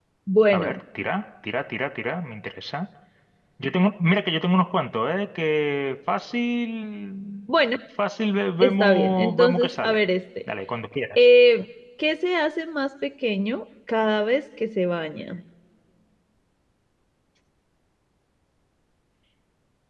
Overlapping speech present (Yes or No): Yes